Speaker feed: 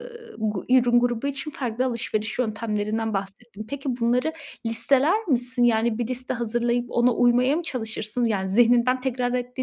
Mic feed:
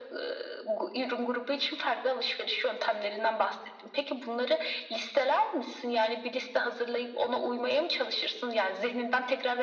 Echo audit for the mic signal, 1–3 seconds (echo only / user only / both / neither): echo only